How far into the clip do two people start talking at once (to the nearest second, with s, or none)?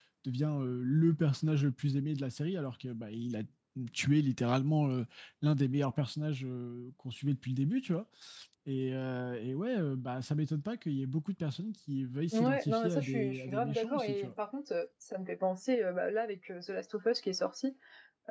12 s